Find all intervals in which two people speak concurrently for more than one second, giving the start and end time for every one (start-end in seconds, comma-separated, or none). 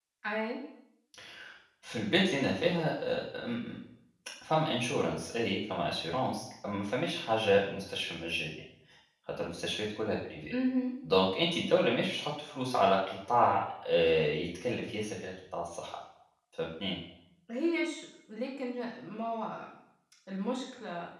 none